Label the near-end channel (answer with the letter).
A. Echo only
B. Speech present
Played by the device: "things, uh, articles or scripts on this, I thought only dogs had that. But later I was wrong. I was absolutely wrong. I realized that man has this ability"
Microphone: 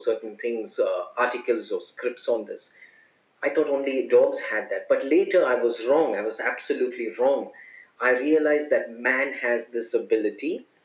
A